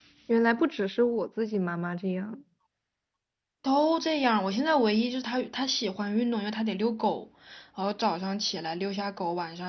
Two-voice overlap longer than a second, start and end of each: none

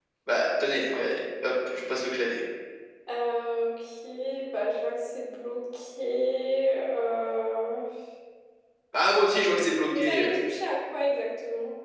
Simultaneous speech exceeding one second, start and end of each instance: none

